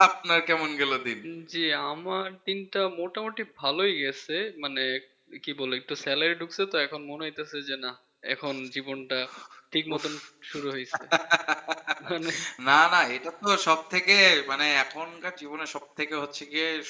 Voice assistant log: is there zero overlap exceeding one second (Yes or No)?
Yes